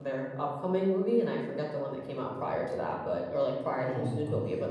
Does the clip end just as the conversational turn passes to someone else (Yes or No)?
No